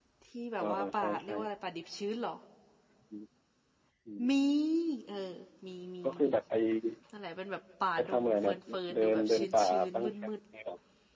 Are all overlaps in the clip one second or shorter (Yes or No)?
No